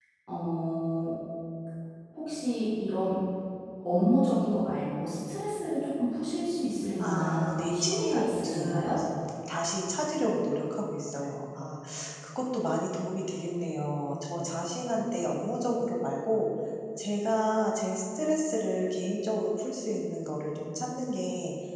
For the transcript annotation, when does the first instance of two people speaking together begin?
7.0 s

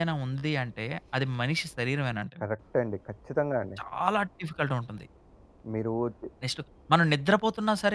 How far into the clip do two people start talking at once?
none

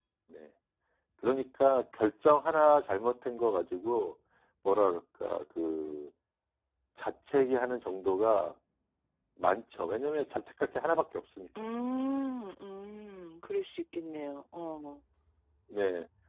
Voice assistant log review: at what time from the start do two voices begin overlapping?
none

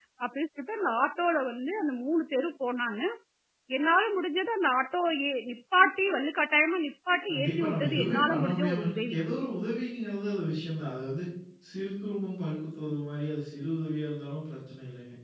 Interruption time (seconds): 7.3 s

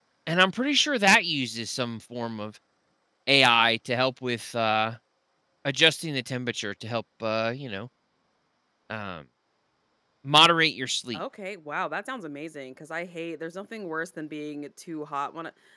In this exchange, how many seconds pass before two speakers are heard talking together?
none

